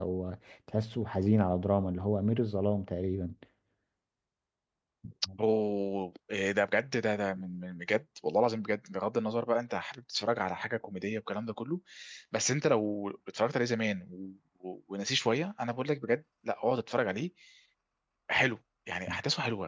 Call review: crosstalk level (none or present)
none